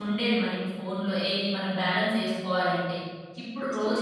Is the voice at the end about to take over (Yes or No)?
No